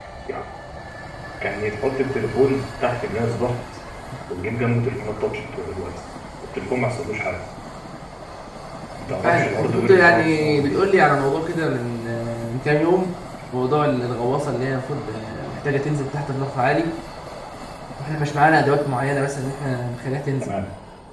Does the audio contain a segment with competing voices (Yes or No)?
Yes